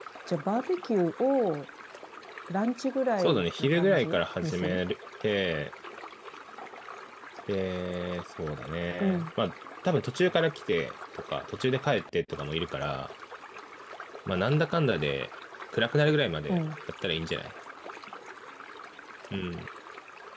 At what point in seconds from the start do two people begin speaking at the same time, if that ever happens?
3 s

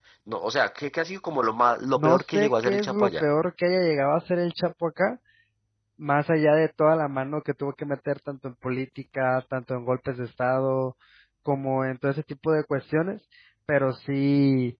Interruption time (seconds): 2 s

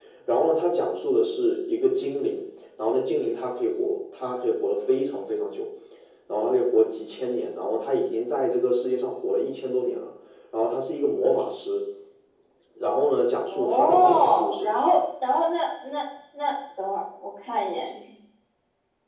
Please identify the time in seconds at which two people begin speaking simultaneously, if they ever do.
13 s

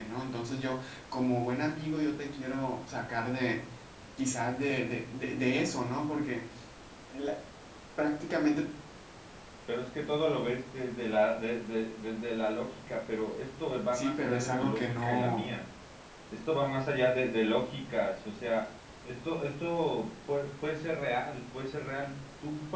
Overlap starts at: 14 s

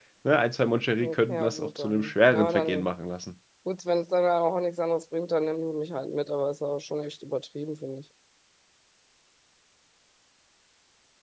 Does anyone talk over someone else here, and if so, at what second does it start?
1 s

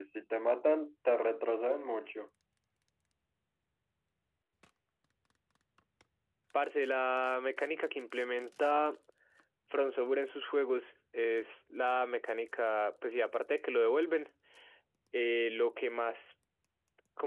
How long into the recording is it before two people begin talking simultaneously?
none

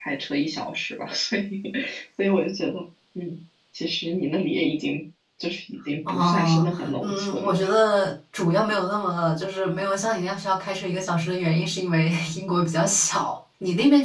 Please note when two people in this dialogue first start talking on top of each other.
6 s

